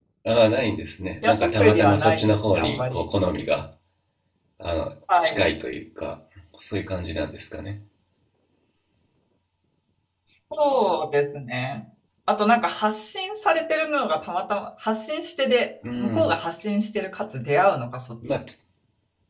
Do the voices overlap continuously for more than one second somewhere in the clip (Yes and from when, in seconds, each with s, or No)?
Yes, from 1.2 s